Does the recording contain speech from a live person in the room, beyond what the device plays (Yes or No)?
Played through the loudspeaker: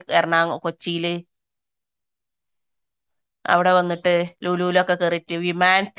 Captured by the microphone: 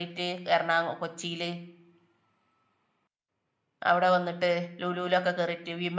No